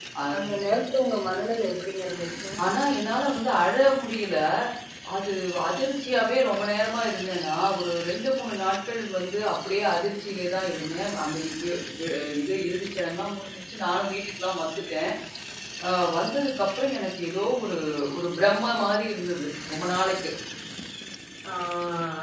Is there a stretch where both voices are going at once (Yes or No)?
No